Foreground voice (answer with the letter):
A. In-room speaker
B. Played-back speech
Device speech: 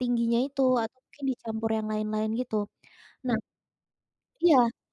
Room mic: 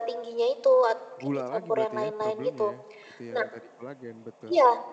B